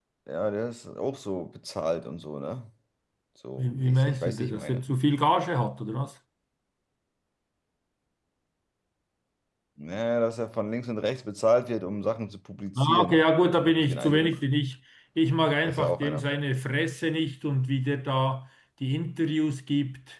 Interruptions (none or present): present